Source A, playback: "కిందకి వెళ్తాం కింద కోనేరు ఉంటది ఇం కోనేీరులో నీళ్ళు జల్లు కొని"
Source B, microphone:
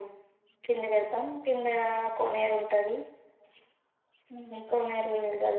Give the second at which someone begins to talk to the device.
none

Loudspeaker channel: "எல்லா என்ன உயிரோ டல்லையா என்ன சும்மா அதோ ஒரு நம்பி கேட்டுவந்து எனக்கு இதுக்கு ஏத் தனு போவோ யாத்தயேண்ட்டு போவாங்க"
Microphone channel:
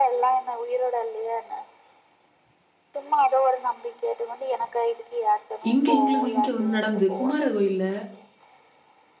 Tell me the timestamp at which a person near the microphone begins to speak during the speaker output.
6 s

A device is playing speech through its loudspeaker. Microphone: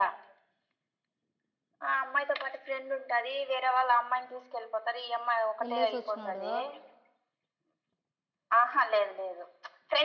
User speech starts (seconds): 6 s

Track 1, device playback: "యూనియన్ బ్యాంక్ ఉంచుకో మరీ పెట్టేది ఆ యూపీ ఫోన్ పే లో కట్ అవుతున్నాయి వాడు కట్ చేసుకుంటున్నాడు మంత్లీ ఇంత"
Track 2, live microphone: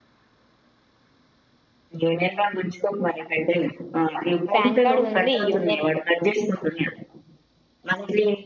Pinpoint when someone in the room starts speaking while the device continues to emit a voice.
5 s

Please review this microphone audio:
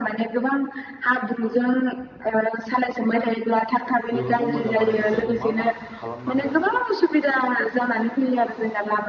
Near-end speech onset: 4 s

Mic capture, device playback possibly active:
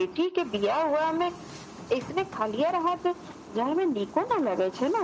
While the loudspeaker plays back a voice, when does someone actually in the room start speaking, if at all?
none

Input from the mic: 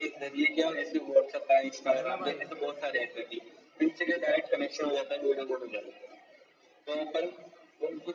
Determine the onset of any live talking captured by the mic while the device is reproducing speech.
2 s

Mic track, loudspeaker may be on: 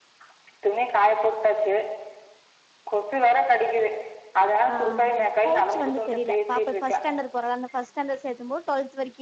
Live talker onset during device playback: 5 s

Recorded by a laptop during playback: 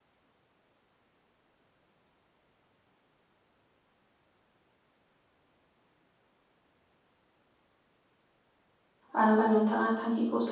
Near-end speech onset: 9 s

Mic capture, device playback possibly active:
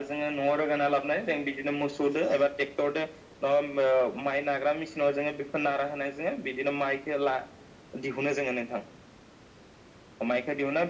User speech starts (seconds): none

